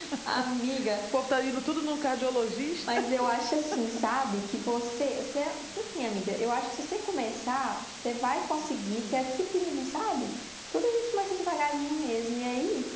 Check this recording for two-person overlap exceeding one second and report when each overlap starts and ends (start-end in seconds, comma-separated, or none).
none